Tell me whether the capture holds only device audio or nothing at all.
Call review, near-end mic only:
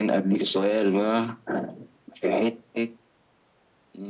Yes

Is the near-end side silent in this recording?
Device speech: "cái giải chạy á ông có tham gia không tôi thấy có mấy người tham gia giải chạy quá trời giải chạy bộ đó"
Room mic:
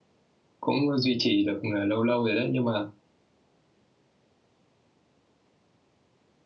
No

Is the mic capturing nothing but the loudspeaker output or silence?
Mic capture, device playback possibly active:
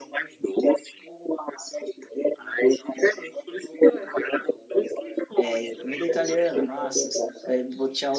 No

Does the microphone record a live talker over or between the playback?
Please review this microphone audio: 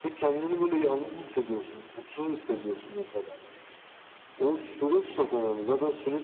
No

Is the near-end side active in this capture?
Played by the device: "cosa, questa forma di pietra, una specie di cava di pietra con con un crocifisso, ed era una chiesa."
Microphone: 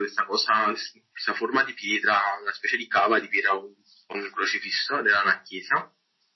No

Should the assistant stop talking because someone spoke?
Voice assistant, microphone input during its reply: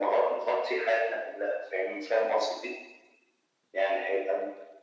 No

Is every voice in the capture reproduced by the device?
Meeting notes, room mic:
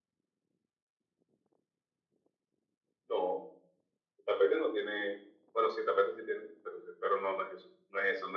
Yes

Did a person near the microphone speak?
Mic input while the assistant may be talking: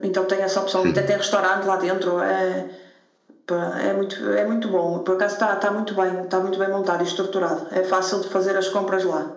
Yes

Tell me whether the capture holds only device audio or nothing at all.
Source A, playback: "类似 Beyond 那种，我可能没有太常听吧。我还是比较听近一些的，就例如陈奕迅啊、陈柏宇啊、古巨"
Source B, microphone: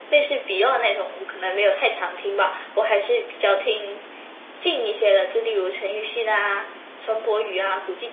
Yes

